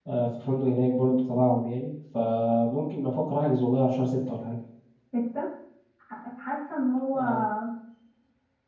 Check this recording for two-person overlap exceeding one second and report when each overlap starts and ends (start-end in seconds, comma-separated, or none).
none